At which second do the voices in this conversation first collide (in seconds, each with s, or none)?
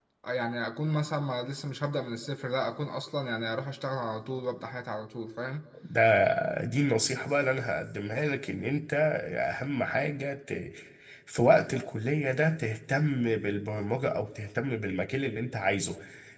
none